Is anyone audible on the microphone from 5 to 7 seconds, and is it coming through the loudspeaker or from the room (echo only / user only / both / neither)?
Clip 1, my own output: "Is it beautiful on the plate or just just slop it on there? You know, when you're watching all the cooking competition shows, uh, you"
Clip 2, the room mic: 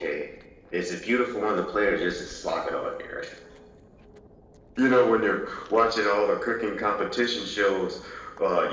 echo only